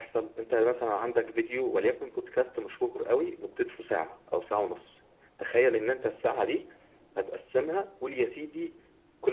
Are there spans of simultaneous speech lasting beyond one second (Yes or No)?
No